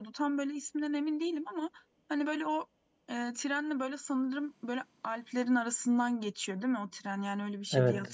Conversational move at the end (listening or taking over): taking over